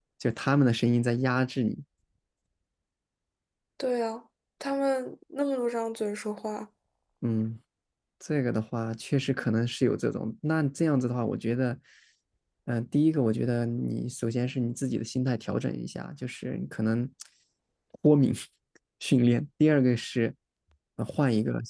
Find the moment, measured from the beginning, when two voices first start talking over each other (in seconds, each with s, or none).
none